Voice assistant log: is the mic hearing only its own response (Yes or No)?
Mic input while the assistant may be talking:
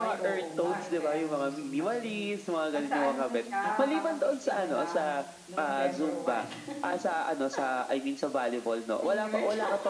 No